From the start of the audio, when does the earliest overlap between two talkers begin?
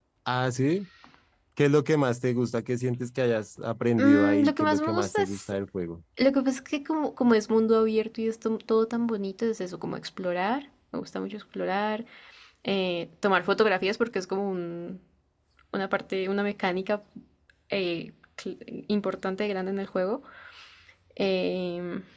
4.0 s

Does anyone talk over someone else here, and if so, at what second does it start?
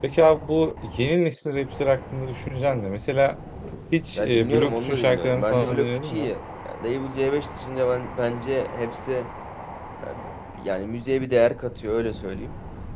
4.2 s

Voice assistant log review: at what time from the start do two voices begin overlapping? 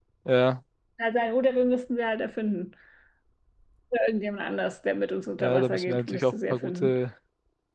5.4 s

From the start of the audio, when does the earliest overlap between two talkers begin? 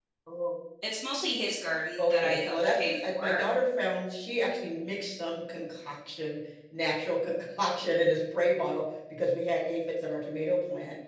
2.0 s

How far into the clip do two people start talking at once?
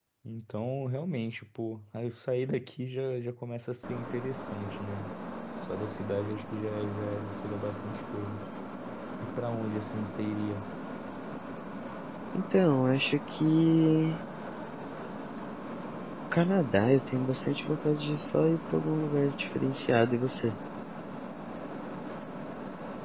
none

